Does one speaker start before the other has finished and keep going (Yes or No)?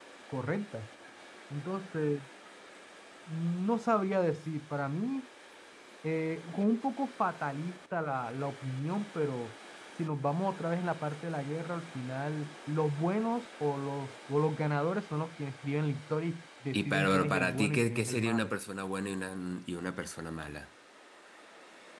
Yes